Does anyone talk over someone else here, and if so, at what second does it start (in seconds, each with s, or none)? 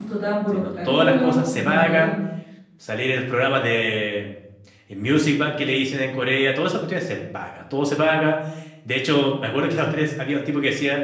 0.5 s